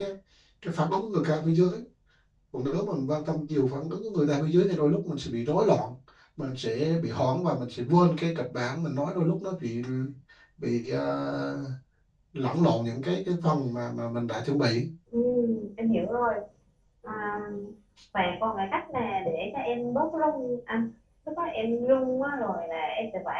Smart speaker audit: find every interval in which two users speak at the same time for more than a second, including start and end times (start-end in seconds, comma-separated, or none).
none